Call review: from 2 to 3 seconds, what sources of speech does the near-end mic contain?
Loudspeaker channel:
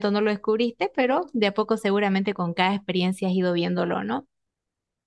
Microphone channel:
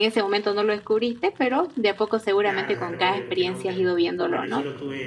both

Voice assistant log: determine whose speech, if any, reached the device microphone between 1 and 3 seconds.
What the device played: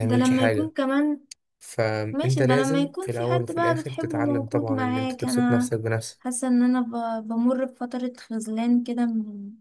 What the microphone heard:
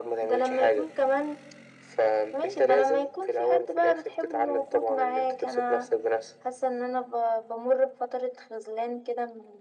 echo only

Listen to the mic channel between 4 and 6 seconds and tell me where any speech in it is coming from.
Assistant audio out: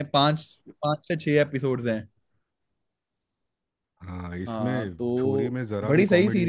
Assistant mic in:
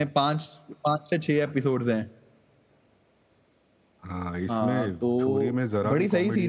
echo only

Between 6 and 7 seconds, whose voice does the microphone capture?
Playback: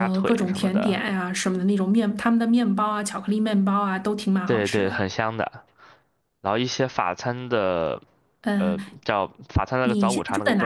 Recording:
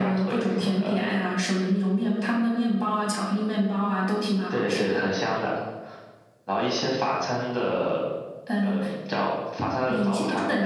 echo only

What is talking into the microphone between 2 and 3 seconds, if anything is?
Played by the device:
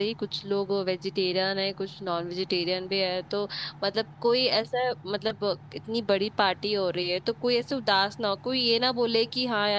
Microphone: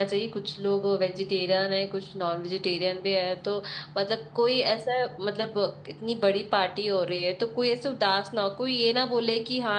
echo only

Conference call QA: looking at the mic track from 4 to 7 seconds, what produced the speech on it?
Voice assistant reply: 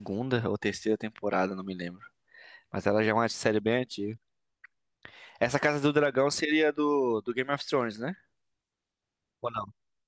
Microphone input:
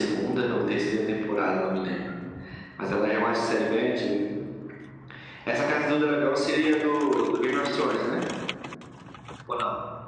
echo only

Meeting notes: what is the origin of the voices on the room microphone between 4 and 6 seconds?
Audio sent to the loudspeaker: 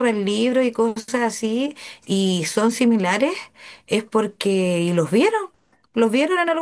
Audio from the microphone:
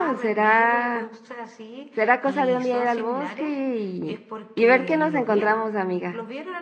both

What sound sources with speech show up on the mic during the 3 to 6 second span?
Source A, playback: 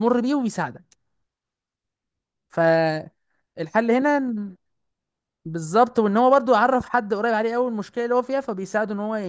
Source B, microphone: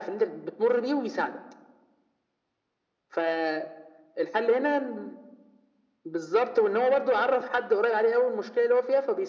echo only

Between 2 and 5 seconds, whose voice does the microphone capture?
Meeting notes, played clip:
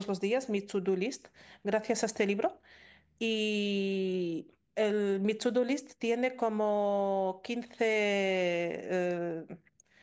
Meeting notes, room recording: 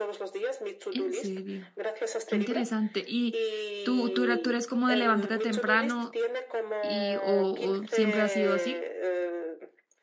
both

